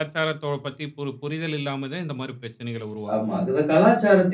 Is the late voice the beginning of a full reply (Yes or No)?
Yes